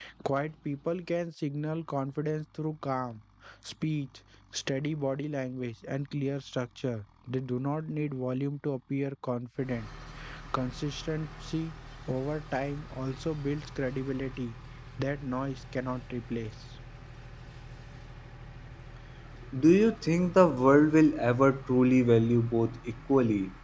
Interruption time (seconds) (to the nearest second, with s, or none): none